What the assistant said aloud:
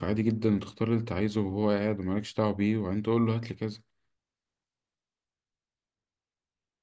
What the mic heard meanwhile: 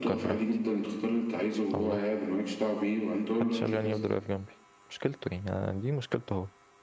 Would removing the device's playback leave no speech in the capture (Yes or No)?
No